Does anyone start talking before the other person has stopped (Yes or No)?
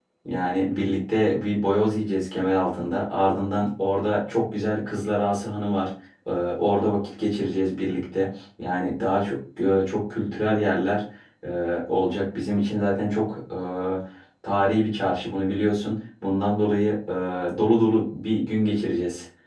No